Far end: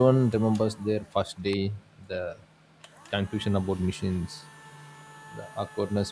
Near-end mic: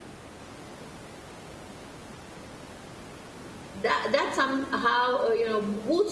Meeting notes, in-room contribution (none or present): present